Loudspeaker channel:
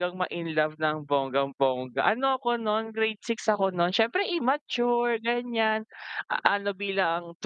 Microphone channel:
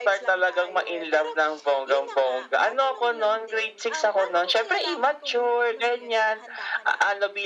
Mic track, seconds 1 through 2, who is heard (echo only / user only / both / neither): both